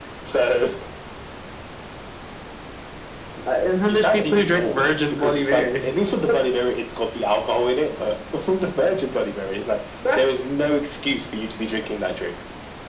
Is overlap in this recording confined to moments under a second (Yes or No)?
No